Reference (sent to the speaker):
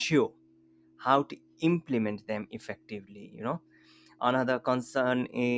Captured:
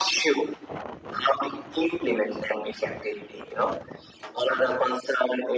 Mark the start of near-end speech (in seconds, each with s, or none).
none